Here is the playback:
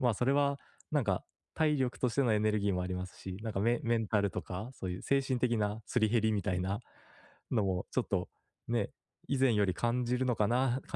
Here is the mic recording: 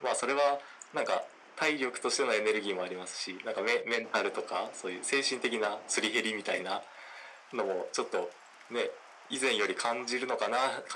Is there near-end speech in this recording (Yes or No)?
No